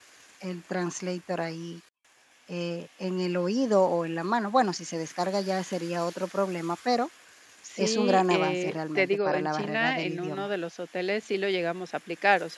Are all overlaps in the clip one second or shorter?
No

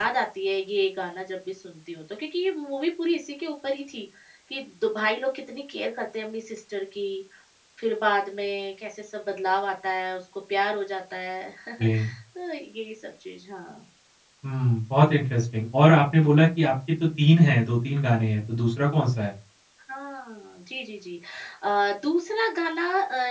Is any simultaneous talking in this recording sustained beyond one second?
No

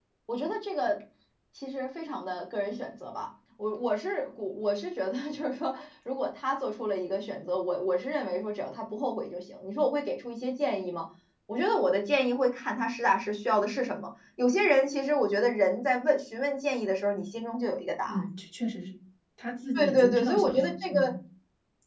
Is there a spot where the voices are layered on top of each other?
Yes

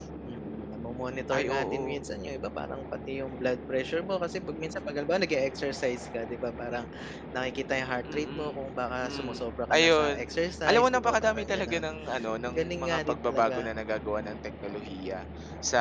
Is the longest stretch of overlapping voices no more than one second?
No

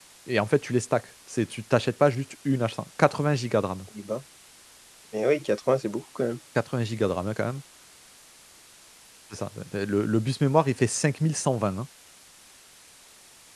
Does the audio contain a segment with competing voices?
No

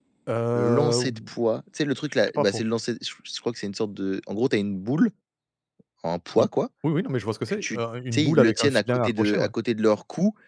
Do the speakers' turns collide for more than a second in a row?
Yes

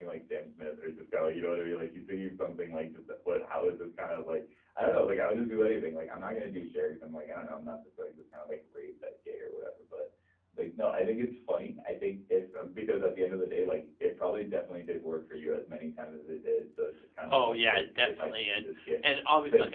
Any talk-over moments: Yes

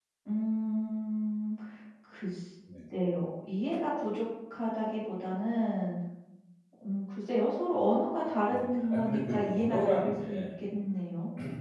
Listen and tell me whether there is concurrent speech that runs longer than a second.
Yes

